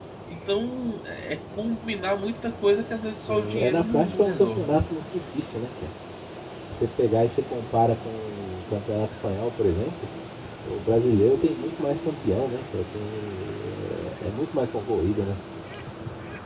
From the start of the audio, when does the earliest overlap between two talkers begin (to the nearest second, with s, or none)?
3 s